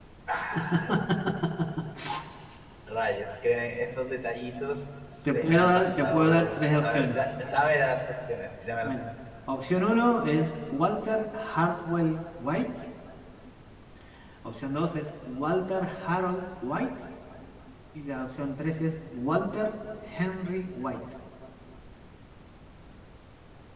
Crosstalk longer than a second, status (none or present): present